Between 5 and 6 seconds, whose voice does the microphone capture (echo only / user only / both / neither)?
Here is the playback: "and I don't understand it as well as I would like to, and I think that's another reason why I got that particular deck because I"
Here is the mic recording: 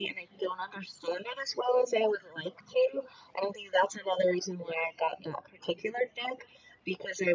echo only